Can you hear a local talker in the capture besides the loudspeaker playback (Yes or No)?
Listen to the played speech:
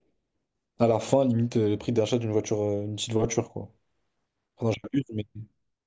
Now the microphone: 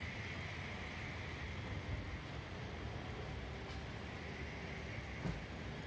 No